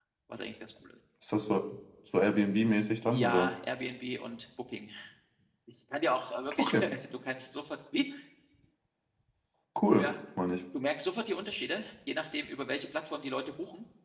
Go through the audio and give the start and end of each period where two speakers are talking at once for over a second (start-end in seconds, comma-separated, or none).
none